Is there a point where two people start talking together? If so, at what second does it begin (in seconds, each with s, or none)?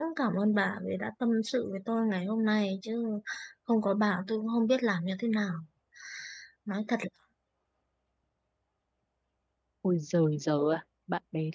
none